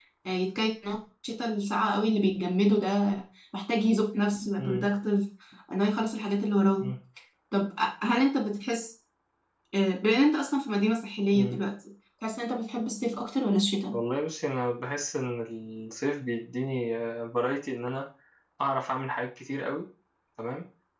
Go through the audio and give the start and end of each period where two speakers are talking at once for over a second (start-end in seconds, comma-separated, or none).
none